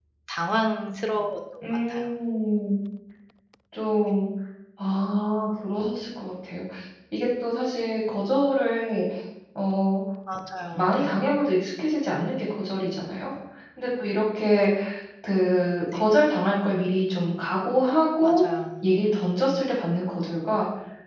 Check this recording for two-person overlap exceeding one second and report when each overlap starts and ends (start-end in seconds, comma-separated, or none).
none